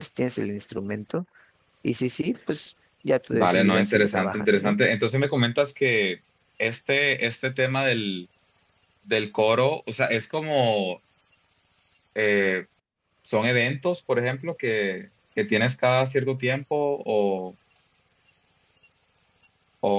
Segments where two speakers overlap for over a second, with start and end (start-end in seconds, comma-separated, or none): 3.3-4.8